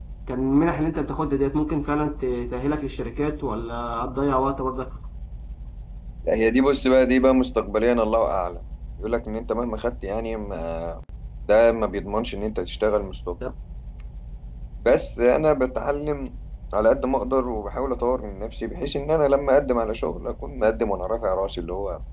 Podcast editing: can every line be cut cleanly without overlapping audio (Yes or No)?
Yes